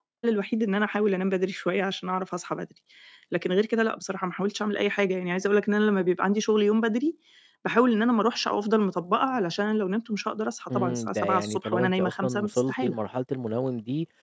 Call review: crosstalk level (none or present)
present